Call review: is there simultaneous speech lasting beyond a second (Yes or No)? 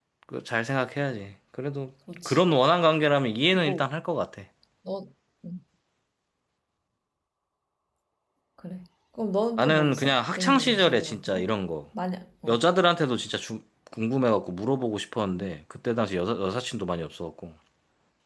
Yes